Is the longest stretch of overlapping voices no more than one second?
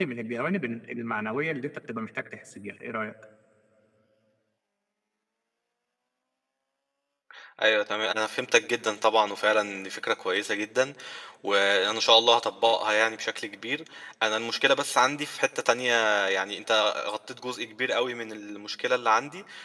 Yes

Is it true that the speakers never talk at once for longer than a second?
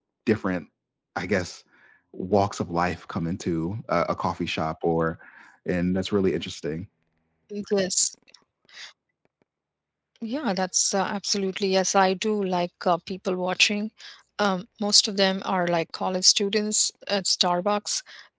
Yes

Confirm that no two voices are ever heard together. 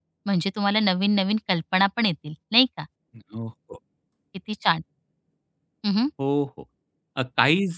Yes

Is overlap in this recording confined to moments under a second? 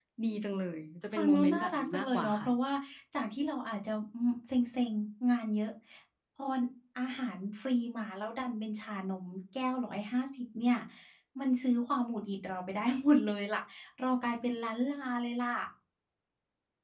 No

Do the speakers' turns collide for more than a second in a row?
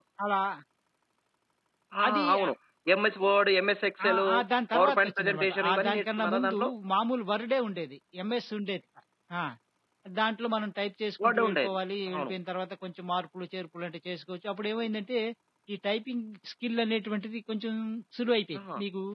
Yes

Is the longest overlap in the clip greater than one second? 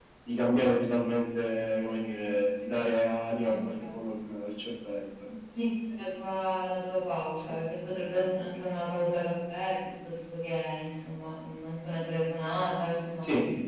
No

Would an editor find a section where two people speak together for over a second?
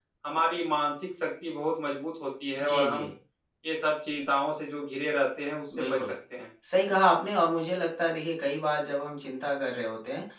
No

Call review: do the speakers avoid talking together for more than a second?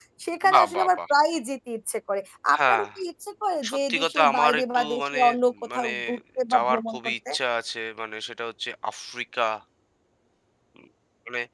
No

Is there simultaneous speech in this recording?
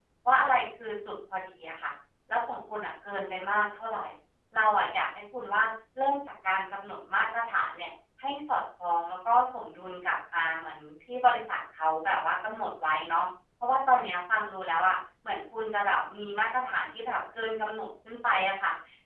No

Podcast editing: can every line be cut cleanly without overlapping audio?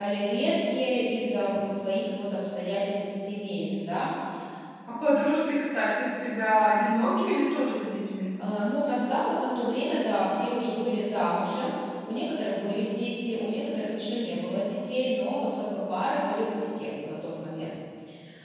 Yes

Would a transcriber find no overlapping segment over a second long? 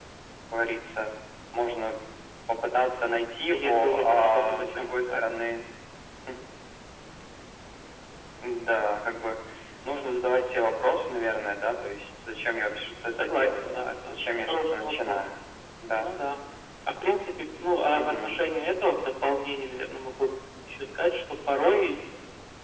No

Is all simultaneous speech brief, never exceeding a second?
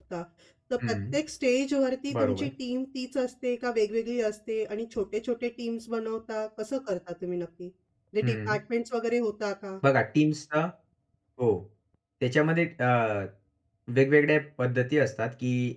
Yes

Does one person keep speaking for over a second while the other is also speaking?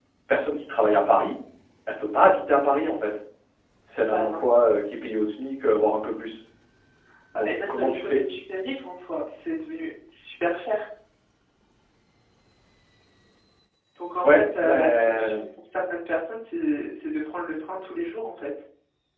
Yes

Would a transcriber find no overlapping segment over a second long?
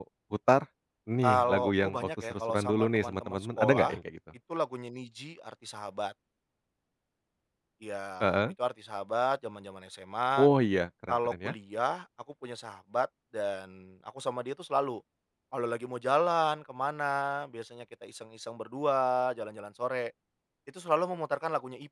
No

